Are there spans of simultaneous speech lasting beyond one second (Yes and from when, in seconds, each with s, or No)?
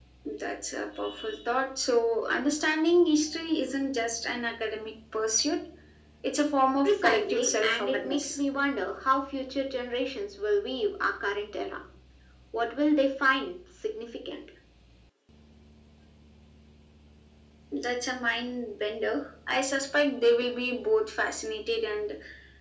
Yes, from 6.8 s